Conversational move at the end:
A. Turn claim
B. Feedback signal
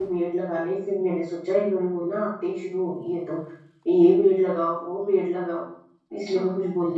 A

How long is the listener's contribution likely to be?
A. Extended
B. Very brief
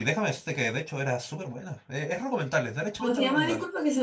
A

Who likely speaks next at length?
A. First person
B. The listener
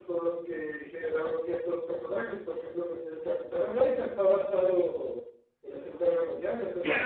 B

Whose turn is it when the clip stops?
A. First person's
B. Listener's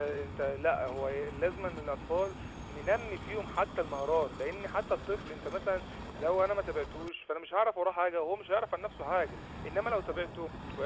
A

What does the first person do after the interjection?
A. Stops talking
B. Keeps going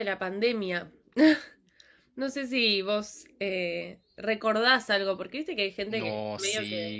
A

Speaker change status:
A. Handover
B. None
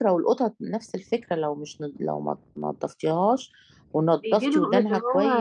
A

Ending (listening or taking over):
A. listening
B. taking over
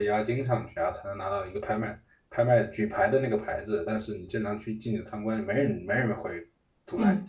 B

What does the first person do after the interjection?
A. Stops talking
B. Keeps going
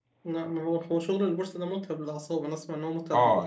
A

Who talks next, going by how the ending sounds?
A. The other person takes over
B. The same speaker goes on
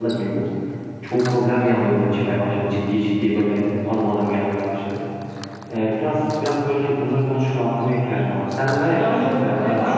A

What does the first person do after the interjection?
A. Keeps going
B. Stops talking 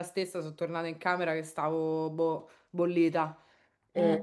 A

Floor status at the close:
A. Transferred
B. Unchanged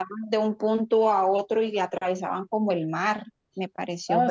A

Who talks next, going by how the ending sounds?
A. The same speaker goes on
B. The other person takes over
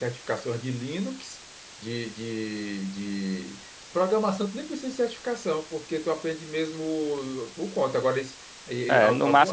B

